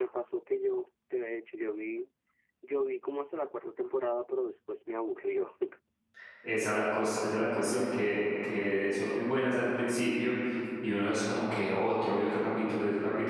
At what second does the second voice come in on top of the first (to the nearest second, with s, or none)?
none